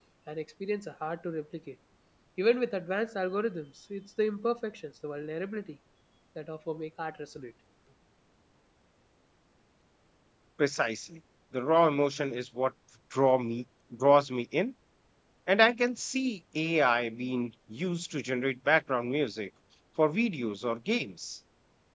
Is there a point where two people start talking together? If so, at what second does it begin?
none

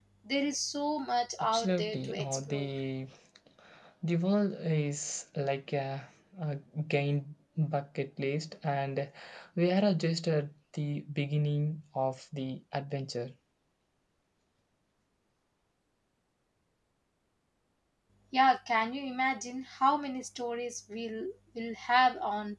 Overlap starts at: 1.4 s

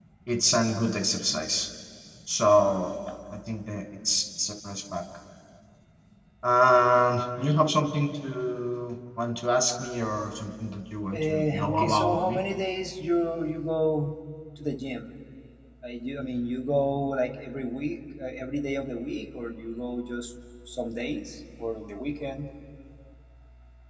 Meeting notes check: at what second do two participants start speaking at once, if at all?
11.1 s

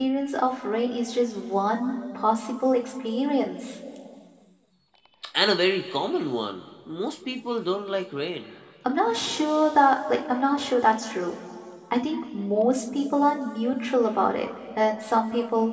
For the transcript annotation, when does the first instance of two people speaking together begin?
none

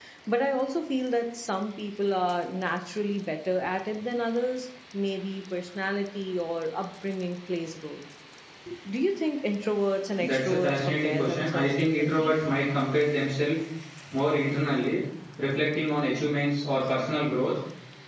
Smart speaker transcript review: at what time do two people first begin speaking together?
10.2 s

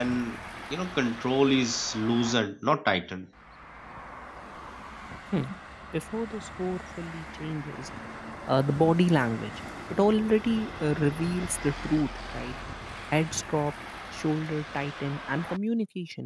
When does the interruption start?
none

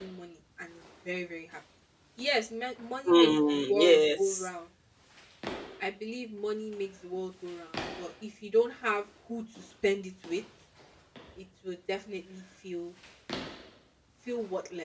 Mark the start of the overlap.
3.1 s

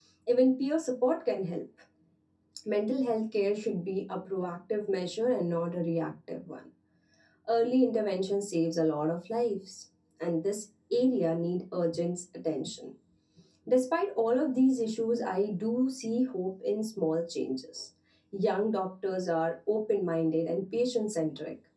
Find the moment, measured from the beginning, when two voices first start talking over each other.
none

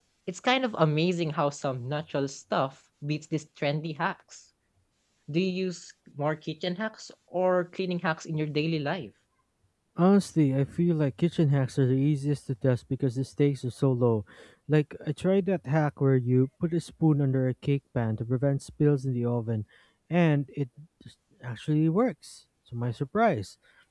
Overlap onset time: none

